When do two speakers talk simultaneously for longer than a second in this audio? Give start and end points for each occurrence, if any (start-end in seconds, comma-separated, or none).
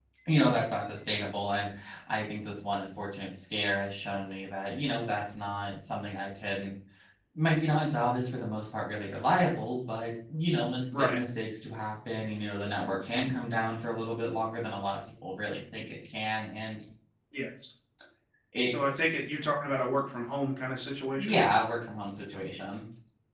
none